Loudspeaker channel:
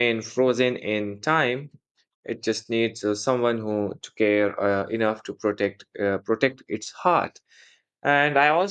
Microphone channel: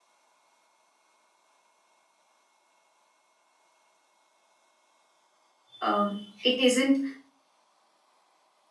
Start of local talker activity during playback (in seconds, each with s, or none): 5.8 s